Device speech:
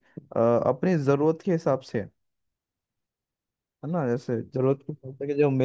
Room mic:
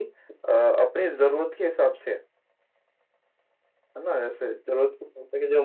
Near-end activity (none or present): none